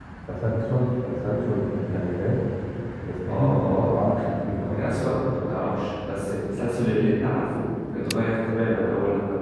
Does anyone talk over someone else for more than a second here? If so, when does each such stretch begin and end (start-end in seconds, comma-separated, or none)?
3.3-5.1